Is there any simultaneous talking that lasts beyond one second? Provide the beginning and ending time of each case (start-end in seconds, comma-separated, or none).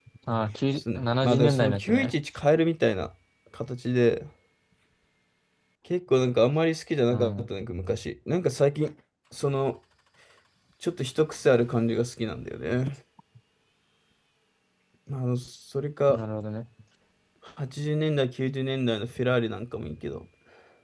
0.8-2.1